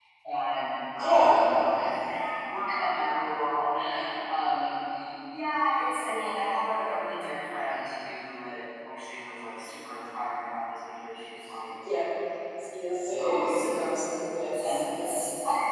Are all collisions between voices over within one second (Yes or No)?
No